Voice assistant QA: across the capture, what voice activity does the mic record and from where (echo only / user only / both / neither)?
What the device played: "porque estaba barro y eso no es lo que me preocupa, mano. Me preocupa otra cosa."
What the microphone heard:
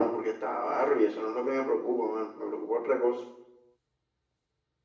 echo only